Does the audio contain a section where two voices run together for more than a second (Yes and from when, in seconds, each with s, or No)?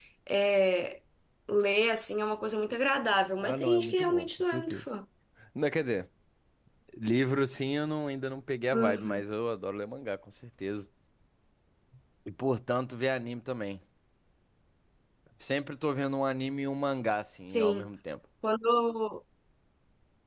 Yes, from 3.4 s